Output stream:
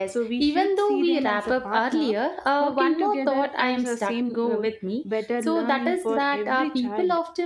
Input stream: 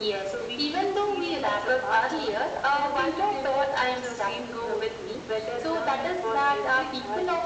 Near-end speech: none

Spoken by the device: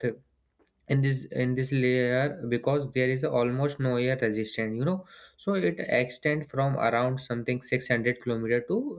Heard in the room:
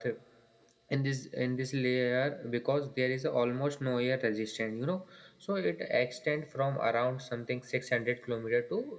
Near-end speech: none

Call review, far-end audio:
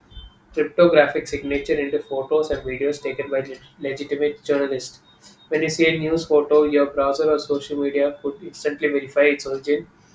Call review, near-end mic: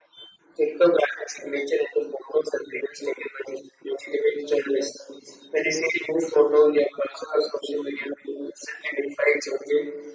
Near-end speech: none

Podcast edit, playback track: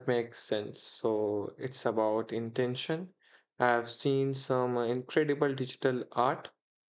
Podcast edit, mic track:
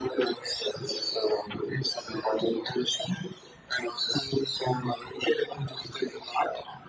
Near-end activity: none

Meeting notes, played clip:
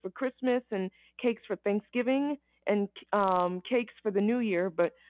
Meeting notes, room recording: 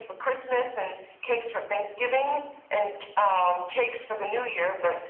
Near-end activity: none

